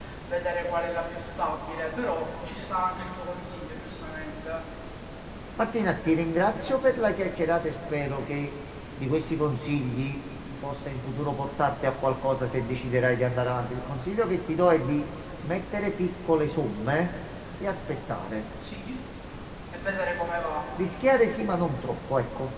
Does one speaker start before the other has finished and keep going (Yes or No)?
No